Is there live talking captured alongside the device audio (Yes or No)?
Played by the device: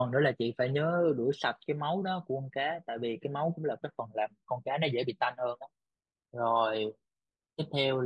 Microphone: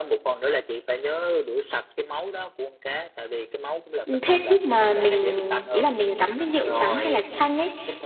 Yes